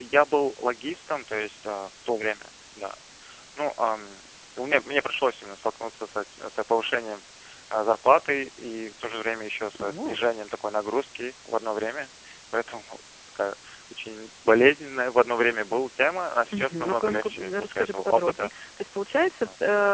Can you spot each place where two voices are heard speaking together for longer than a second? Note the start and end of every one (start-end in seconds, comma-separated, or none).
16.5-18.5